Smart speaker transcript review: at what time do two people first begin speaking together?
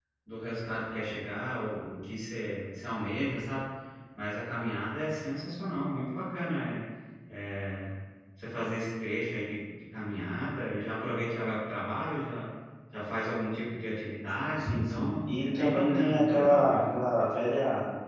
15 s

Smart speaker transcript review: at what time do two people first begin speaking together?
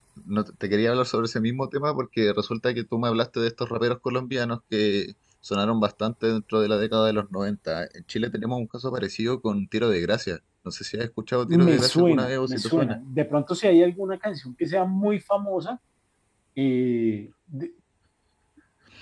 11 s

